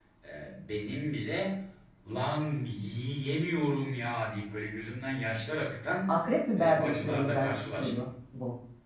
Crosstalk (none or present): present